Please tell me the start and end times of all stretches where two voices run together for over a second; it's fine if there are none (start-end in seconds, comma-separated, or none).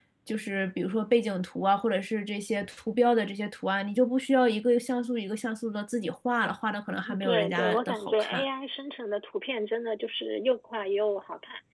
7.2-8.4